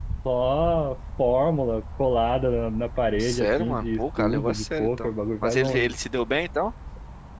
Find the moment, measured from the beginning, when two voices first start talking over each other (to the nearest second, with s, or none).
3 s